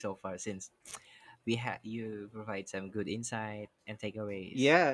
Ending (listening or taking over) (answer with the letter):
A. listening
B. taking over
B